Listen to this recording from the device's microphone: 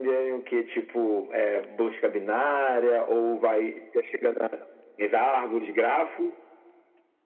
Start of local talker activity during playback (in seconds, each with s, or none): none